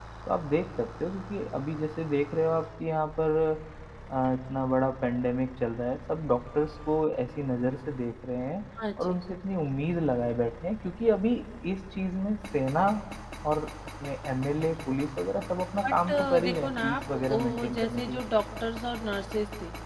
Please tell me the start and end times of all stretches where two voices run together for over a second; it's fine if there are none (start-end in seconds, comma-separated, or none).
15.9-18.2